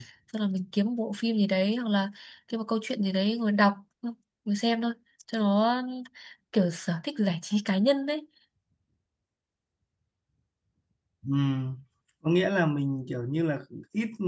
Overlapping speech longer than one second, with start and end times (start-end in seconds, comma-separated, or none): none